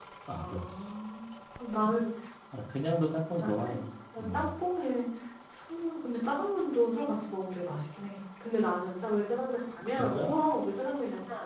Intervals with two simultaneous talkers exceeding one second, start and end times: none

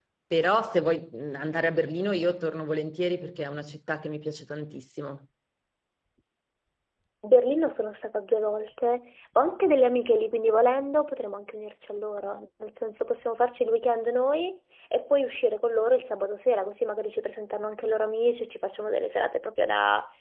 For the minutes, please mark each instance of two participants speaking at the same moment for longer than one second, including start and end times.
none

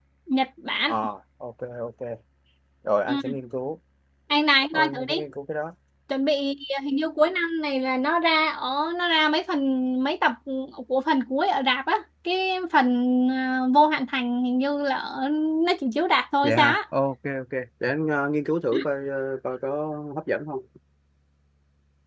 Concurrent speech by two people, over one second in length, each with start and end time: none

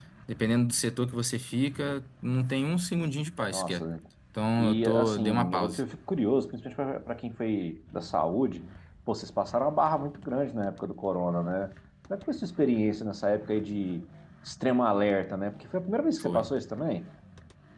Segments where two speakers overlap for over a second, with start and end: 4.6-5.8

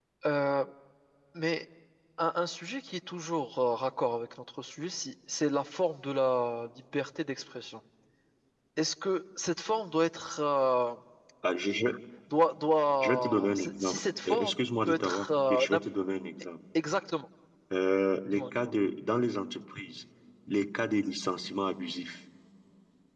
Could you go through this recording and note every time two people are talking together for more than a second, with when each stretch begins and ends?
13.0-15.9

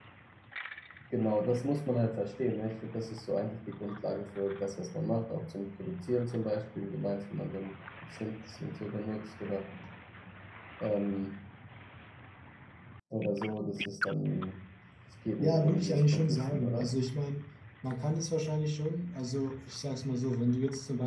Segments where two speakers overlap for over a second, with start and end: 15.4-16.9

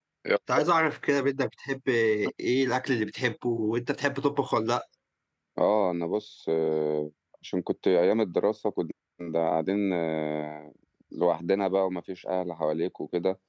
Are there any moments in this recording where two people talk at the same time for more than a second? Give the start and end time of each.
none

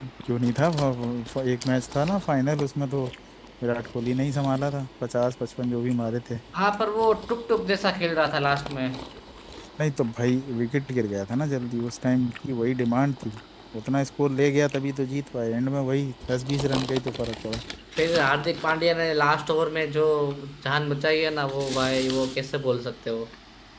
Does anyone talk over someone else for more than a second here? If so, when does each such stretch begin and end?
none

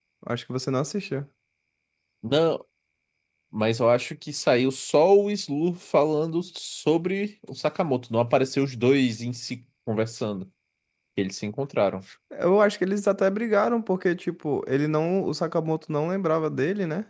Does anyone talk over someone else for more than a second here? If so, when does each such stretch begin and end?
none

